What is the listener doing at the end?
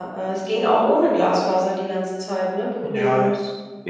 taking over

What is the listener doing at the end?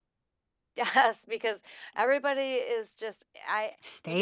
taking over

